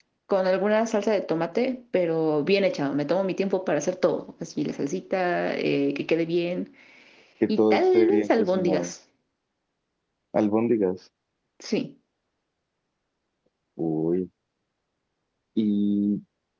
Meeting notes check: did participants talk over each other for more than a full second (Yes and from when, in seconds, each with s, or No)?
Yes, from 7.5 s